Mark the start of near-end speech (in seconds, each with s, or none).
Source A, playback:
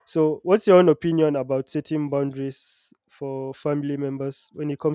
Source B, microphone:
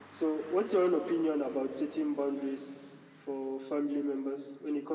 none